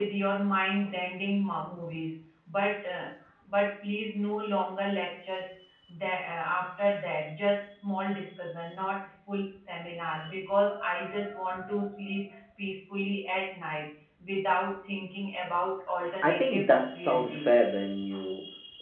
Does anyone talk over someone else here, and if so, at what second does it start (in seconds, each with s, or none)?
16.2 s